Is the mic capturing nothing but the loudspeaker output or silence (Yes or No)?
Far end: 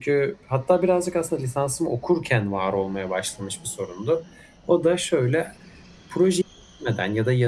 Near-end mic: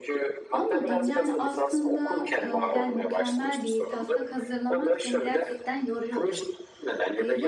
No